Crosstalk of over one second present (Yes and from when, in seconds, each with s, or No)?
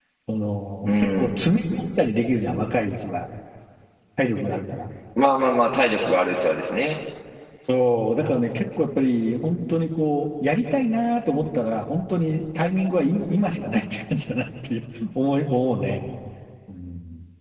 No